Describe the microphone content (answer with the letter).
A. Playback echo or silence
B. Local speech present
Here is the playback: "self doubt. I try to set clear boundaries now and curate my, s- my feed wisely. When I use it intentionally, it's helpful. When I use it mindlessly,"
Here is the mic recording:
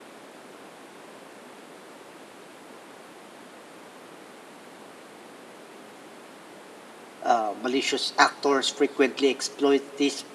B